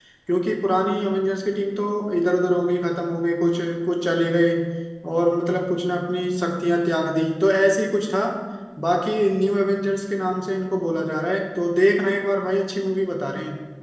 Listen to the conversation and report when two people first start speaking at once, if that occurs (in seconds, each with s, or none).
none